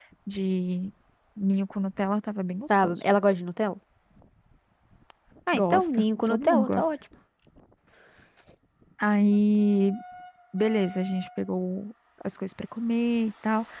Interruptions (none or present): present